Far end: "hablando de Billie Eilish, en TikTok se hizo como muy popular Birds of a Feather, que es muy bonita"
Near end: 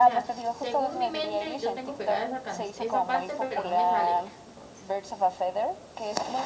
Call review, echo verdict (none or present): present